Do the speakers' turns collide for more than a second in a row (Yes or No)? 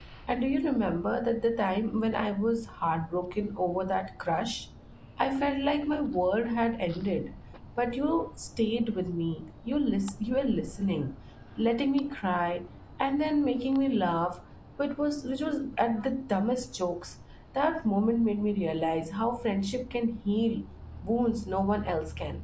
No